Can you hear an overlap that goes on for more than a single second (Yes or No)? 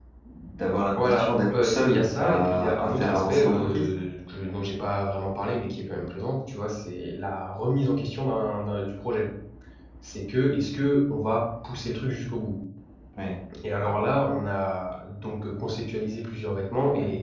Yes